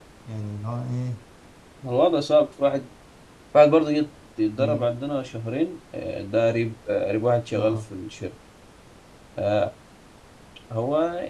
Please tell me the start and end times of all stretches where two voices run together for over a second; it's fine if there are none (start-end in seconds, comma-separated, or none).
none